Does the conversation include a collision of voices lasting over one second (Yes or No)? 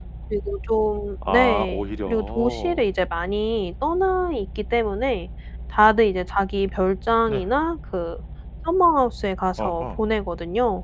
Yes